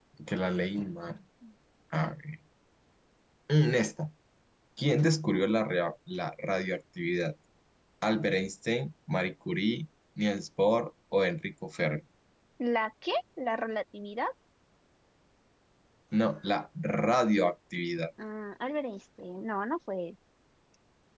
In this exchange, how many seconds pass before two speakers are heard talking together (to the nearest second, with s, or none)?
none